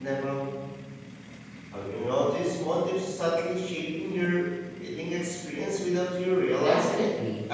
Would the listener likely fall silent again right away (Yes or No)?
No